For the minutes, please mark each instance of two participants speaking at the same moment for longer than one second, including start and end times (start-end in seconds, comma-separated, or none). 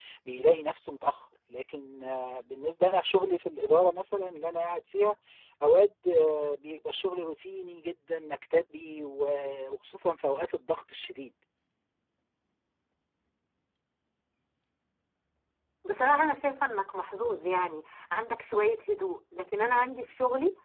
none